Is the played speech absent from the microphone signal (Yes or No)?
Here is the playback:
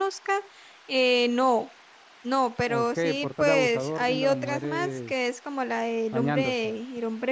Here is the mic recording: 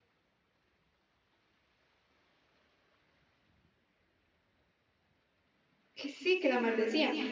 Yes